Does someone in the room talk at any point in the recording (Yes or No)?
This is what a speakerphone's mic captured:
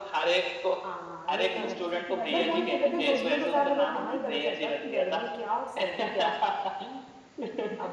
Yes